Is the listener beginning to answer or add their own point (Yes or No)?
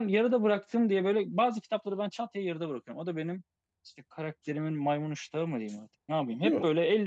No